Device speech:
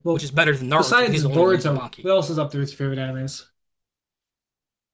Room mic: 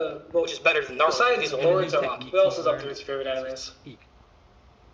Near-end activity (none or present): present